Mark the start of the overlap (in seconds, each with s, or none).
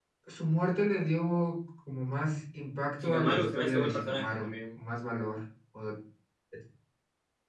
3.0 s